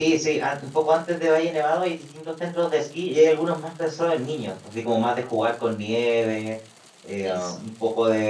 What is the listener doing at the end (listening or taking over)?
listening